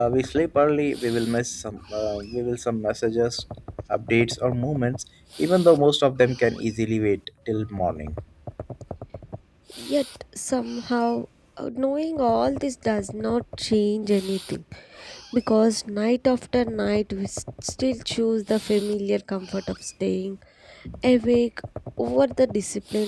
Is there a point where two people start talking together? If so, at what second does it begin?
none

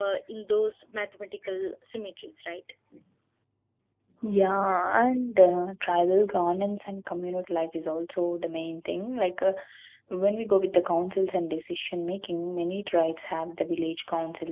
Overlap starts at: none

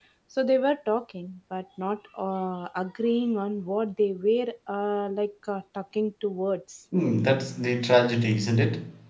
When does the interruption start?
none

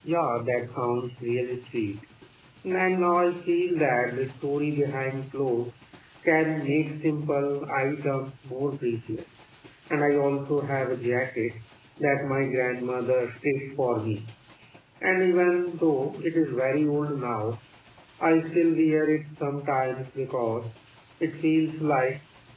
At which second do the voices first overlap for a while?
none

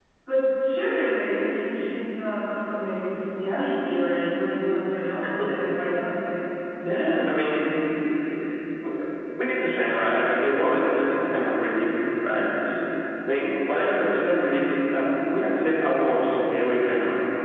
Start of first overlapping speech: none

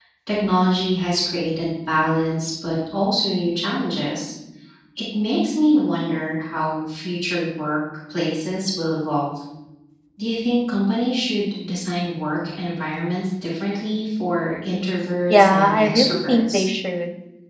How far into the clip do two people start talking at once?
15 s

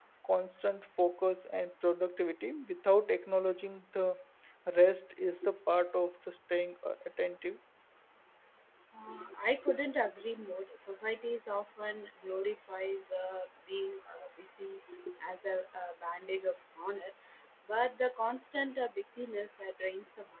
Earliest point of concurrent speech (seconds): none

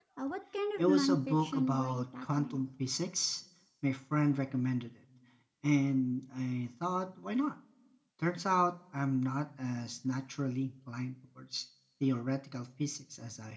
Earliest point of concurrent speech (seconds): 1 s

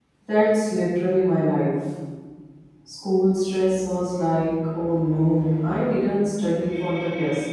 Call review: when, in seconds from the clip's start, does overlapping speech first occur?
none

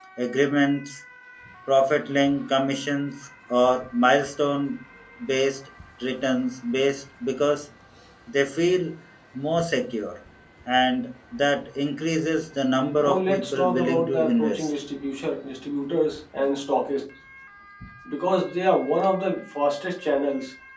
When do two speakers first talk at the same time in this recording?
13 s

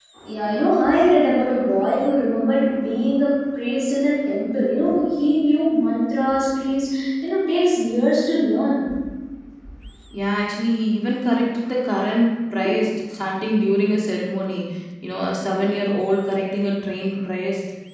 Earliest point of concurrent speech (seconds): none

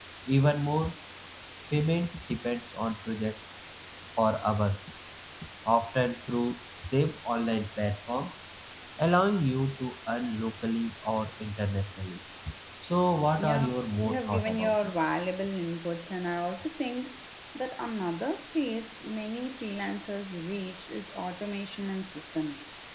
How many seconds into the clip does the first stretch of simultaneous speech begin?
13 s

